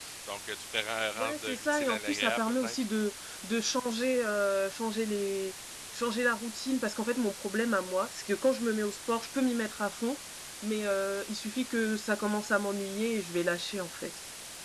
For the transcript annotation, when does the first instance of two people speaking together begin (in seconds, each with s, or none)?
1.1 s